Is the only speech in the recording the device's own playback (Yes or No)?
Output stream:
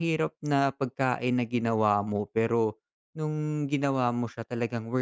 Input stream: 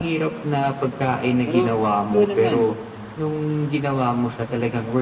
No